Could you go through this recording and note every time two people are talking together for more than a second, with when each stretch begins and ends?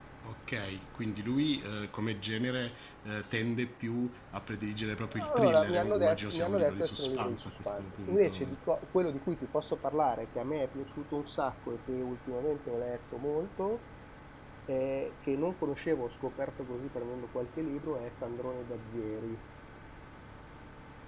5.4-8.6

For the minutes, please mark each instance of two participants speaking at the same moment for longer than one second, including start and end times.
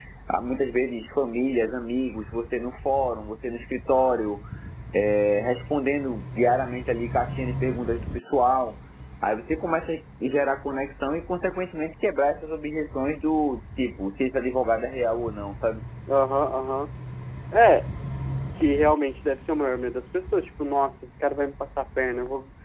none

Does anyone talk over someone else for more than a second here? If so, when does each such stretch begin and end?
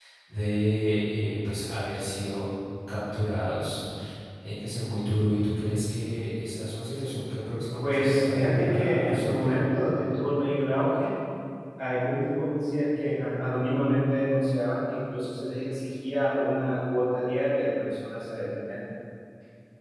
7.8-9.5

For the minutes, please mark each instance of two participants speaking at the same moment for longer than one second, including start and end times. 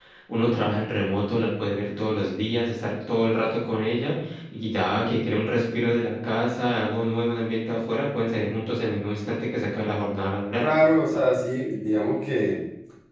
none

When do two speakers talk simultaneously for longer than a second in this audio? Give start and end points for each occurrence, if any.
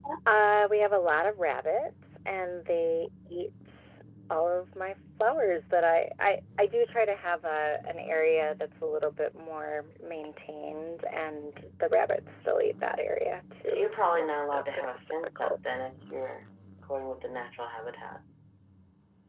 13.6-15.8

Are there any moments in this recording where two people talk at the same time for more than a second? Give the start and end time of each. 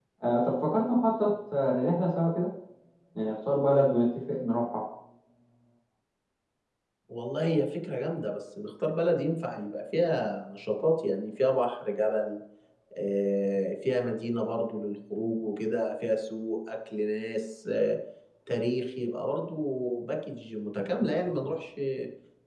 none

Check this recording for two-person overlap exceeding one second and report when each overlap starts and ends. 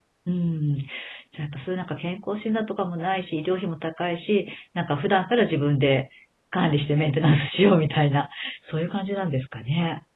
none

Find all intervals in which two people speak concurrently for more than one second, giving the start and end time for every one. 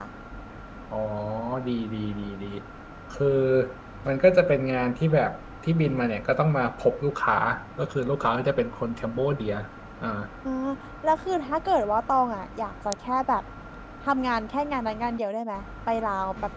none

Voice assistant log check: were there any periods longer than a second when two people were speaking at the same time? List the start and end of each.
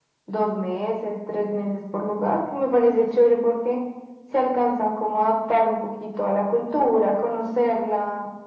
none

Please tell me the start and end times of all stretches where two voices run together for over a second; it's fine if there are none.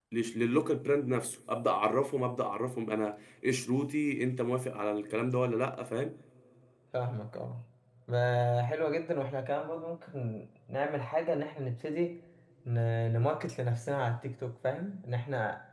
none

